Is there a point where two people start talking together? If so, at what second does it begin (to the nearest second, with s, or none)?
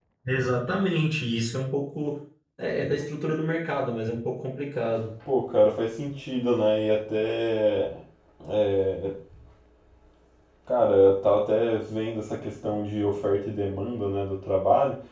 none